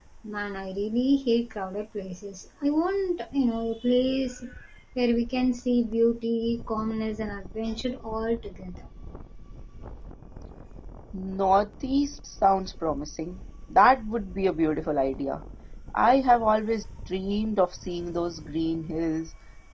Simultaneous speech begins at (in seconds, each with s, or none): none